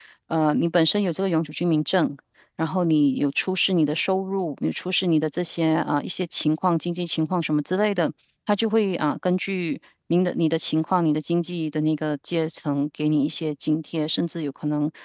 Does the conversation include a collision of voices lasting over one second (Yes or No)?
No